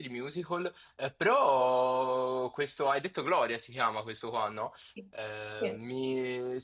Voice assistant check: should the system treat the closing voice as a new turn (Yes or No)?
No